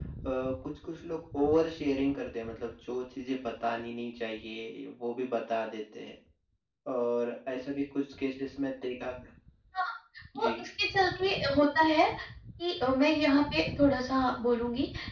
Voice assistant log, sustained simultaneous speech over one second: none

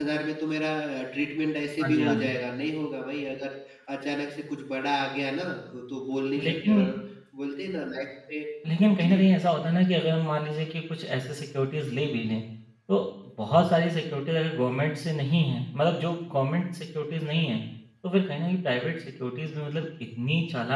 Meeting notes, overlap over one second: none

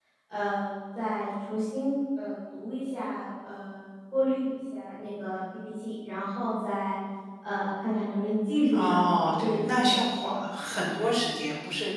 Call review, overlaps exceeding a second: present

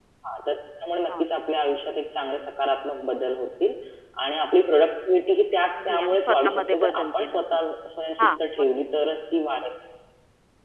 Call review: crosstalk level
present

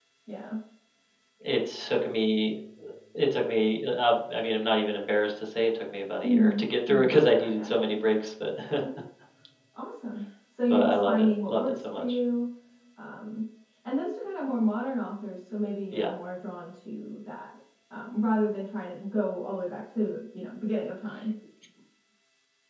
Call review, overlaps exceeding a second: present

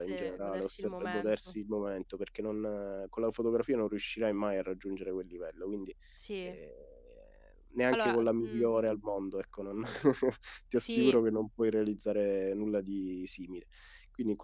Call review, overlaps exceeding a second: present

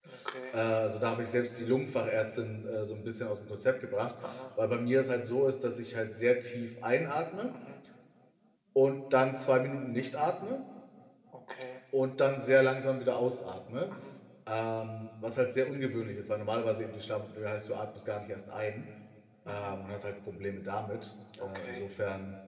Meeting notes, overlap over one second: none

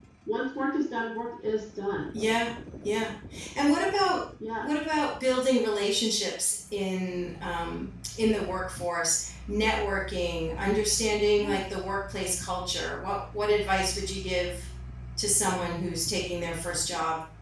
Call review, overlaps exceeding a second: none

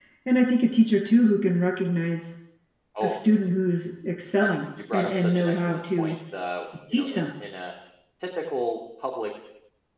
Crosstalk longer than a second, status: present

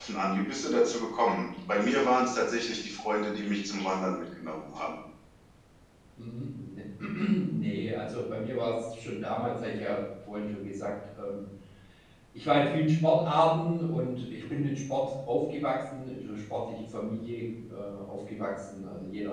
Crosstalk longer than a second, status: none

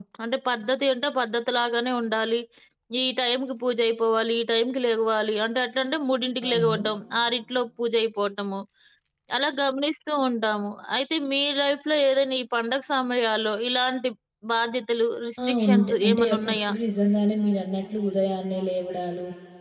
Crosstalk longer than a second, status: present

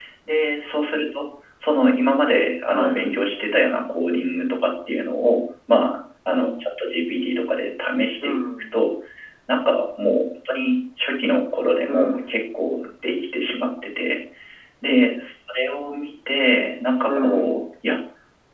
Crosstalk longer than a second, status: none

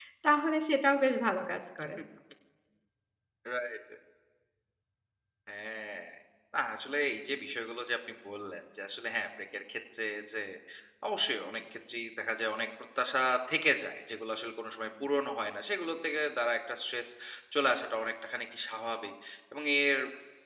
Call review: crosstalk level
none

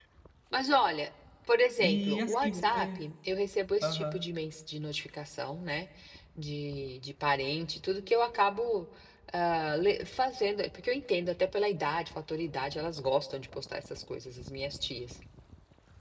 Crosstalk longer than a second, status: present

